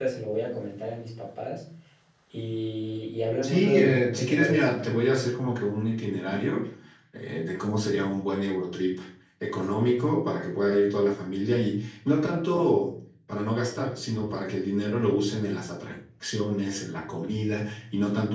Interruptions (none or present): present